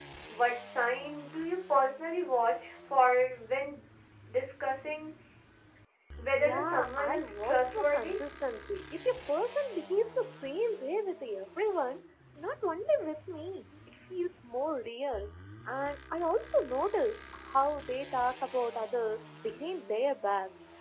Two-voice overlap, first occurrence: 6.3 s

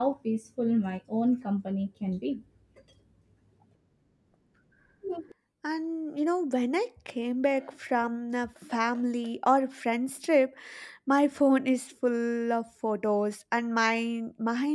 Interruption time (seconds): none

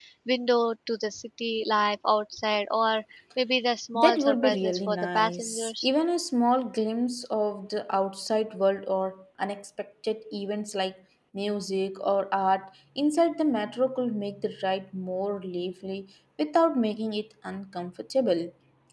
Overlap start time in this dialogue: 3.9 s

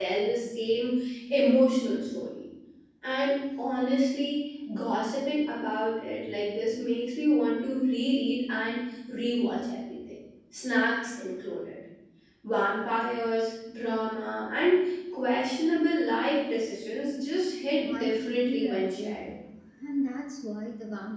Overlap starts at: 17.9 s

